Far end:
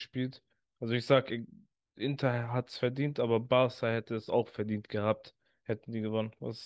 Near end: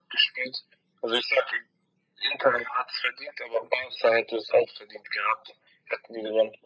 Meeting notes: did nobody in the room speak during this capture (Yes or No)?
Yes